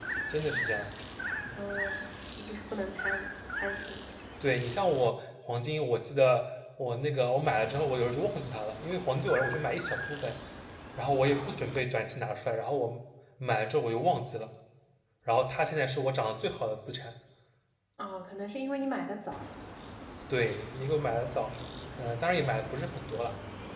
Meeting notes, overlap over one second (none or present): none